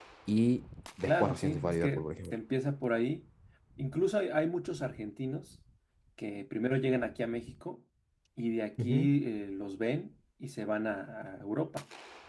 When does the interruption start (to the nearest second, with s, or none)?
1 s